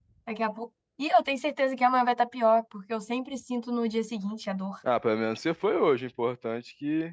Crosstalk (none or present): none